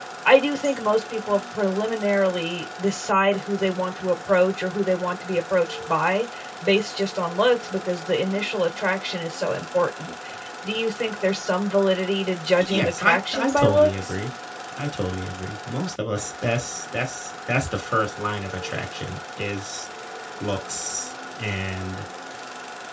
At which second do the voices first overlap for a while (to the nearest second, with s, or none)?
13 s